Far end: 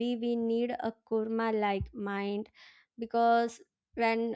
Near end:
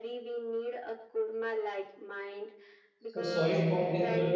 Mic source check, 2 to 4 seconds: both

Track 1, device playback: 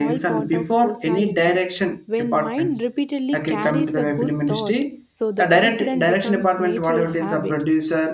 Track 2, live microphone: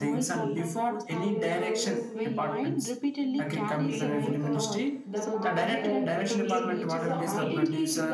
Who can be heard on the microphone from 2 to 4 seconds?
both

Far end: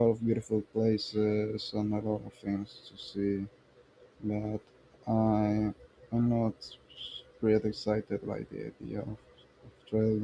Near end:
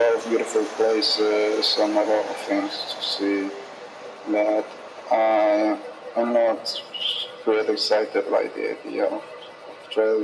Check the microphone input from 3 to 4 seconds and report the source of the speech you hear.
echo only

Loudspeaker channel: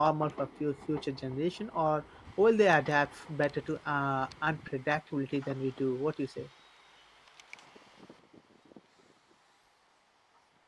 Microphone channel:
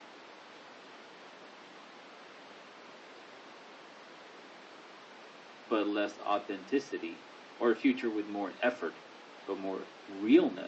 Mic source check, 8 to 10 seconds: user only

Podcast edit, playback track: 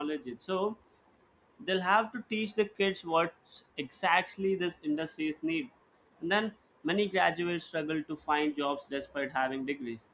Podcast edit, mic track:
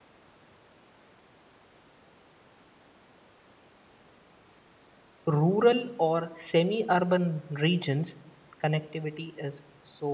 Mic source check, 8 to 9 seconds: user only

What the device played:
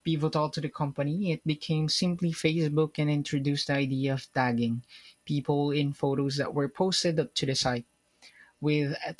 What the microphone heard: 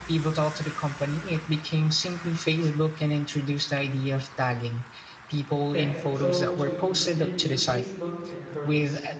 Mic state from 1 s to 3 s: echo only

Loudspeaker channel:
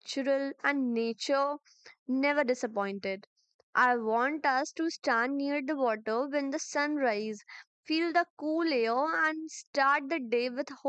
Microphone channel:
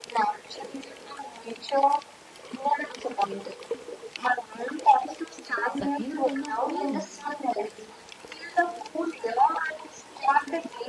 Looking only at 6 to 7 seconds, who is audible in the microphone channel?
both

